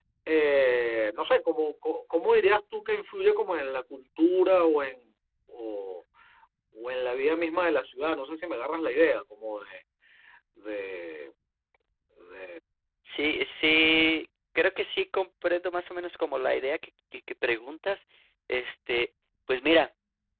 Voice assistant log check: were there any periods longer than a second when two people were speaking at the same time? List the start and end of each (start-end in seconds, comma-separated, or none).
none